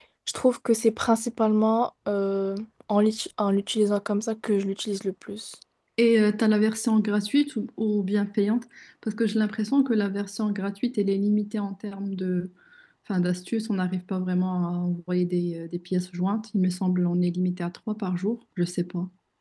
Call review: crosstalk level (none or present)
none